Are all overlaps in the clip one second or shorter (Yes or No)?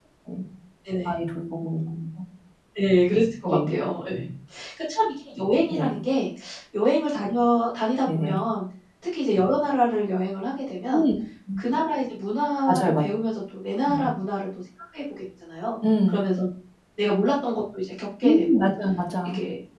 Yes